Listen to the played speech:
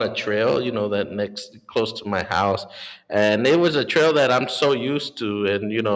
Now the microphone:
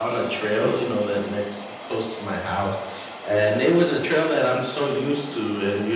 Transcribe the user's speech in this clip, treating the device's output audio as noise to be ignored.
none

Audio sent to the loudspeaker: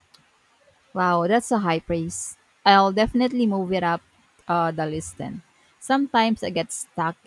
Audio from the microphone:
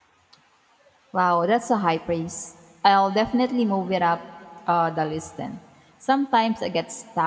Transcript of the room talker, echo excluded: none

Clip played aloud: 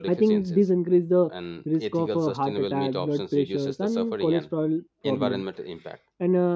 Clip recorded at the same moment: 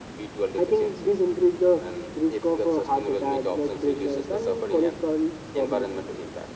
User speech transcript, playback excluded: none

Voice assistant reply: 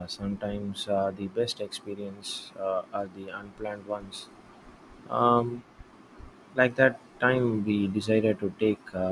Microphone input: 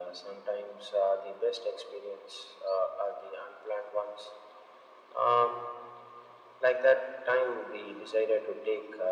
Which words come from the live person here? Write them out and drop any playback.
none

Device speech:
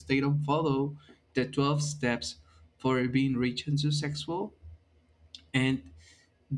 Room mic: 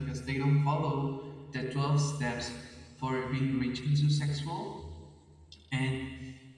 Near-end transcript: none

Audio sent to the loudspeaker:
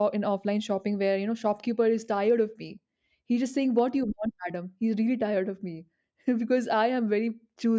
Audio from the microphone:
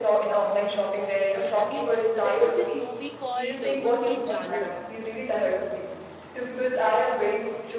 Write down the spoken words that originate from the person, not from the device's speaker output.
Ah, that that is why. I mean, there was this movie called uh, OK Janu

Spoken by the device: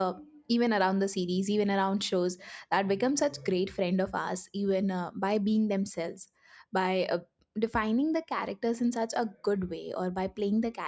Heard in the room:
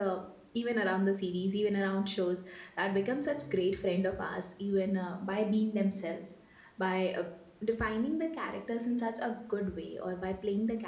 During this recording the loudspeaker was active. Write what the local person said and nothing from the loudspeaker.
none

